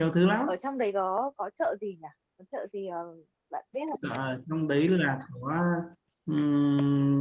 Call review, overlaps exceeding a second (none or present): none